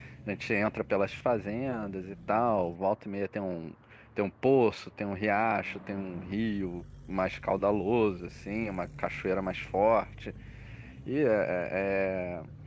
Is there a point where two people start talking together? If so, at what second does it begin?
none

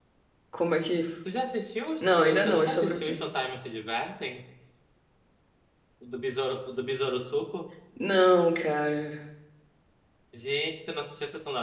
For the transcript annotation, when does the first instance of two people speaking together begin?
2 s

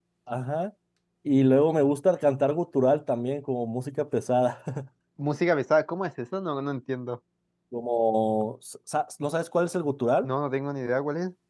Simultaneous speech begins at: none

